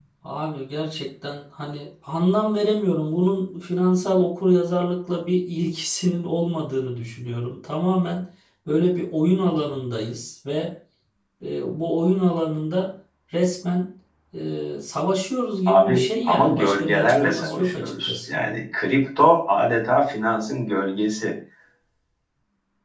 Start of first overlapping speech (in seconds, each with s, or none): 15.7 s